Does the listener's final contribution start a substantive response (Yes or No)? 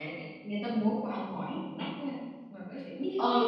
Yes